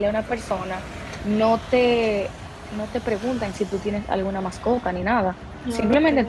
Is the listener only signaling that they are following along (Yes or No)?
Yes